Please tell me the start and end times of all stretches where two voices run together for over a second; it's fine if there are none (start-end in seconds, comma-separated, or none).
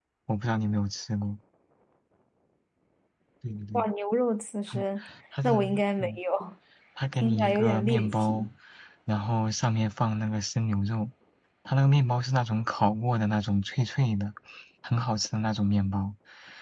7.2-8.5